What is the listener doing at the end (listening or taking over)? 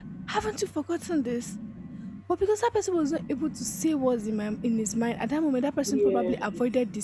listening